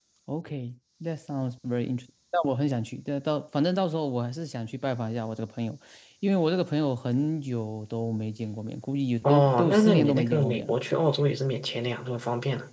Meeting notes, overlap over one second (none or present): present